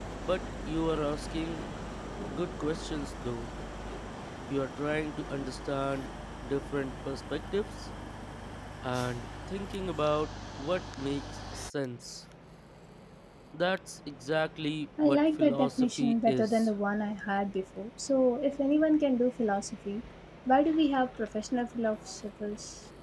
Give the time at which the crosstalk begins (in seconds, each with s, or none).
15.0 s